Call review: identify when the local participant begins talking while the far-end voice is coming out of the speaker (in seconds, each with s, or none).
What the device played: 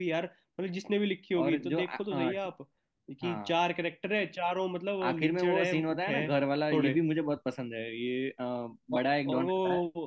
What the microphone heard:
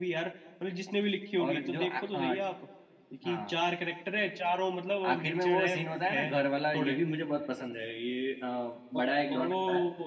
none